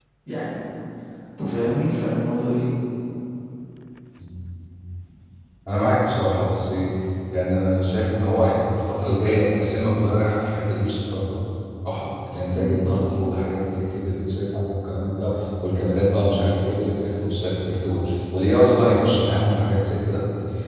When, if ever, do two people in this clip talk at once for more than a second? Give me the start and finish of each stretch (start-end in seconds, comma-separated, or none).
none